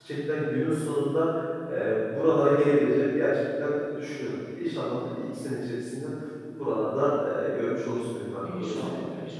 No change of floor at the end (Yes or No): No